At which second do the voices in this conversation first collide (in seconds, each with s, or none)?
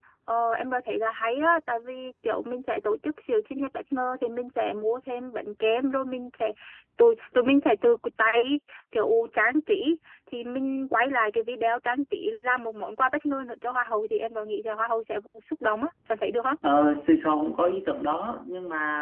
none